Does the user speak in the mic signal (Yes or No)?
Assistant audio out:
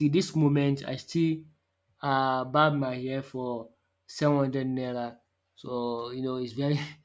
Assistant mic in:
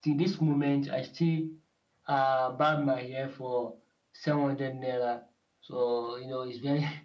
No